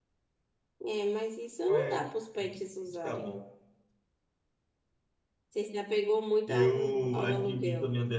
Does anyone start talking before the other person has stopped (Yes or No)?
Yes